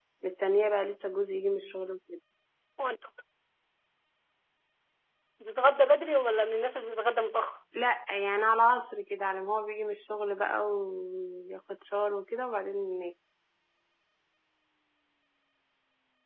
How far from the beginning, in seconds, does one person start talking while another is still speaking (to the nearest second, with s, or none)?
none